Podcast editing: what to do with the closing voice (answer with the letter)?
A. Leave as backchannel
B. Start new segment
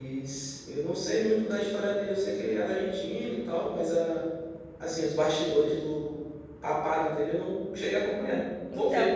B